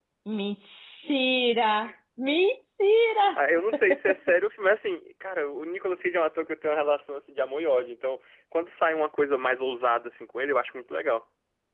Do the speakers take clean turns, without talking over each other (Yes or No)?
Yes